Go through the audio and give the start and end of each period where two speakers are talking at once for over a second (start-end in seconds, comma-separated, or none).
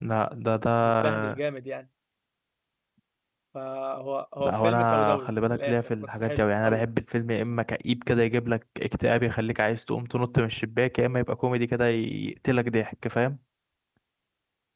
4.4-6.8